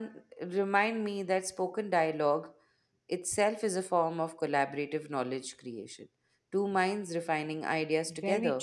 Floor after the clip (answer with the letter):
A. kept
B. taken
B